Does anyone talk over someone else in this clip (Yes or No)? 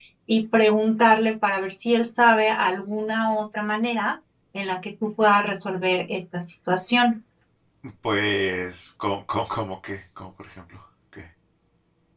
No